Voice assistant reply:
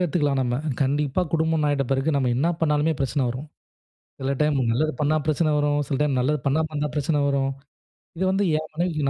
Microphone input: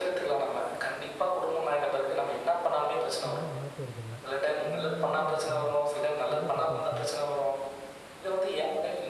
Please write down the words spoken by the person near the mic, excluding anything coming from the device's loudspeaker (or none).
ஒன்னும் மாறப்போறதில்ல. அவங்க அவங்களாவே இருக்கட்டுமே! என்னா தப்பு இப்ப.